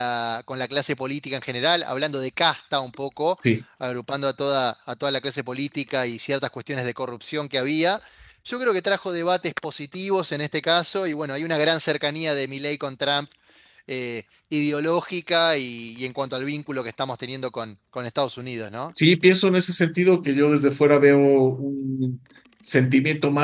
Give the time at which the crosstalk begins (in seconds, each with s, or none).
none